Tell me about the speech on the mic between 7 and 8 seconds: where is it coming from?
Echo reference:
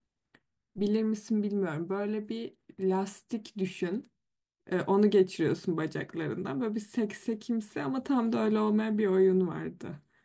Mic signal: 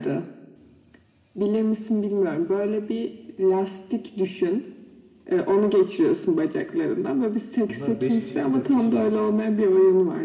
both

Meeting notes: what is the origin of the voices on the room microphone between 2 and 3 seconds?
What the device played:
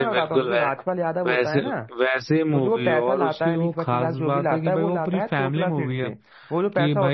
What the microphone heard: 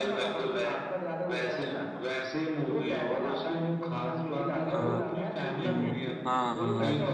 echo only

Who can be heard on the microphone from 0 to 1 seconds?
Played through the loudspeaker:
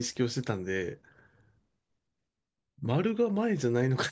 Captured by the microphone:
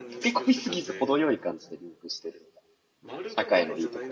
both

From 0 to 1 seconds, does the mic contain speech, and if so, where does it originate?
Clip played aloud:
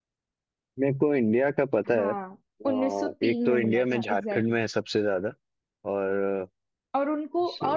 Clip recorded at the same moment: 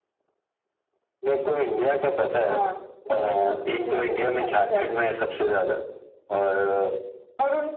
neither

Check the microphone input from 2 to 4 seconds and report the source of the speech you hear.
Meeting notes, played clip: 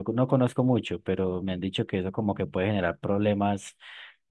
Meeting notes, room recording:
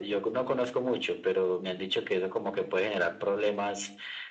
echo only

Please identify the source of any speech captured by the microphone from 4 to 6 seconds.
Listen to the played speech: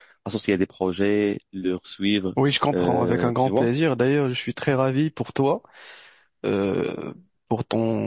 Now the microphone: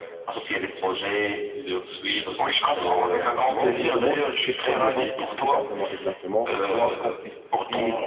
both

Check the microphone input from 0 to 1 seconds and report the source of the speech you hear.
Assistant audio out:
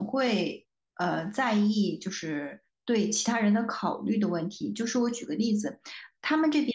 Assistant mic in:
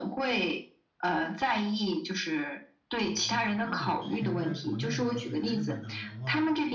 echo only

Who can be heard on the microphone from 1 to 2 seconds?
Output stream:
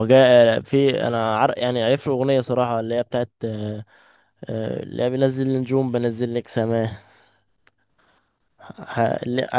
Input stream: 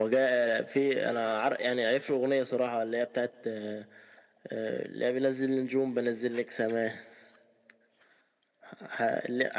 echo only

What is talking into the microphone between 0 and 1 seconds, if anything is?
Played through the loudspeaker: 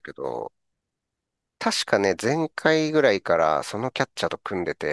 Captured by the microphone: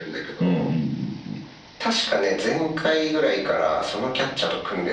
both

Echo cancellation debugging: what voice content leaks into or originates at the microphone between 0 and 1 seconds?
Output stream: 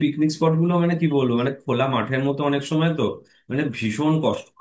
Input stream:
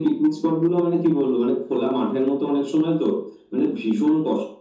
echo only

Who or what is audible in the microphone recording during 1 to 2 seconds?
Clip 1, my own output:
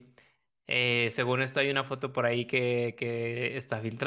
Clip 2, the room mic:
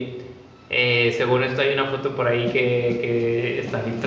echo only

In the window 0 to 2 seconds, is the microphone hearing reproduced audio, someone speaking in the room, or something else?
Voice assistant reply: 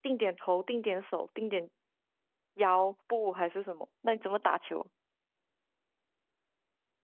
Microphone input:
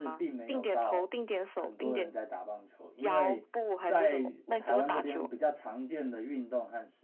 both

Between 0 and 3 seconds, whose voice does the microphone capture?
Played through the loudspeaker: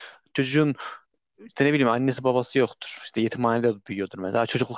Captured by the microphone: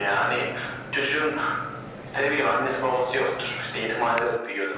echo only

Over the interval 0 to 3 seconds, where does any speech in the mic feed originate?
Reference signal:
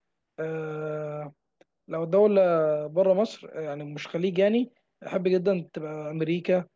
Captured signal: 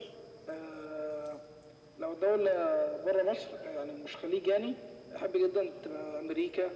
echo only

